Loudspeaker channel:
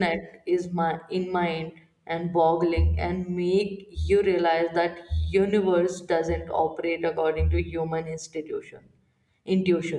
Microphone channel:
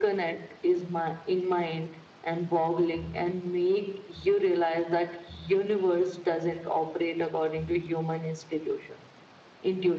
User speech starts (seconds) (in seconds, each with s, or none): none